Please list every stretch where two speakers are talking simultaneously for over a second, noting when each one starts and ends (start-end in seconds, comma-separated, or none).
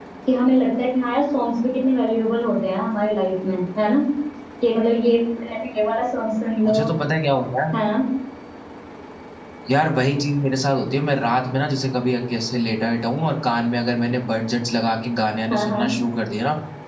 none